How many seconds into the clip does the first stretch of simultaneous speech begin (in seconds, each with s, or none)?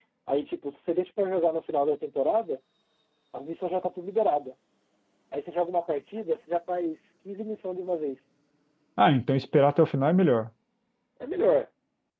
none